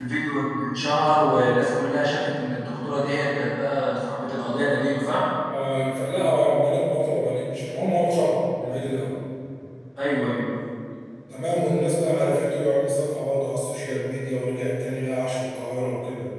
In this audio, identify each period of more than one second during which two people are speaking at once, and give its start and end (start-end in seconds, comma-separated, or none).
none